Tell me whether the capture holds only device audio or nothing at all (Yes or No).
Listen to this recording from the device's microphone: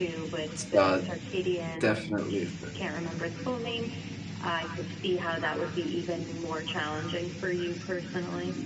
No